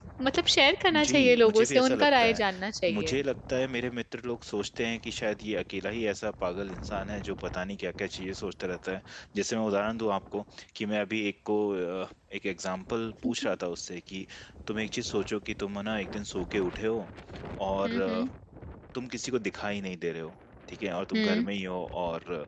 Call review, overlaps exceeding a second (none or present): present